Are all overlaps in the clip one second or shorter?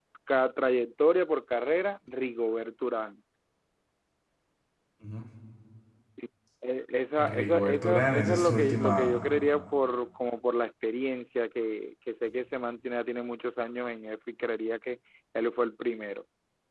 No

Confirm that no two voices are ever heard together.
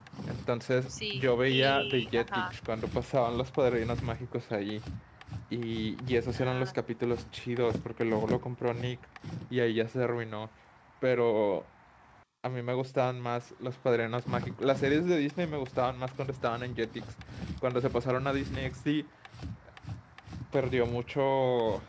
No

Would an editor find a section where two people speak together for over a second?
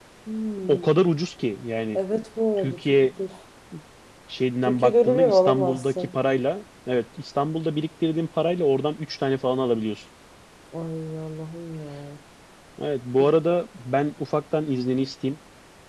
Yes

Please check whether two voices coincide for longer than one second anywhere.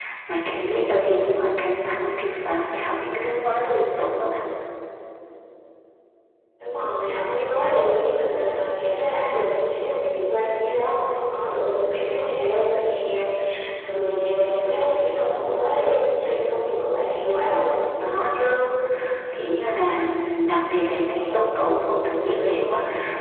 No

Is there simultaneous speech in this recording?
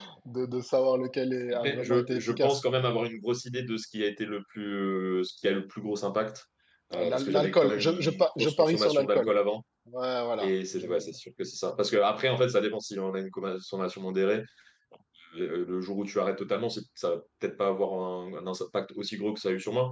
Yes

